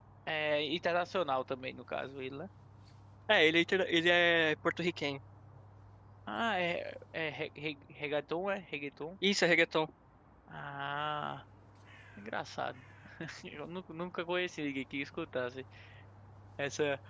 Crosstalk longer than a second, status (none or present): none